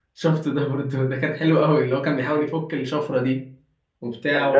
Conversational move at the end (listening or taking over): taking over